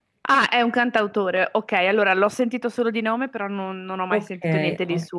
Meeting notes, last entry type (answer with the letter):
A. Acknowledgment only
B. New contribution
B